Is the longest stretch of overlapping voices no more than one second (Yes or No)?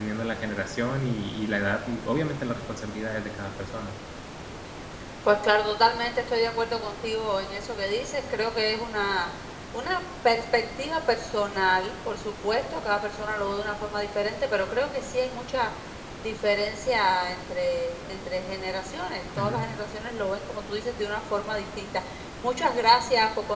Yes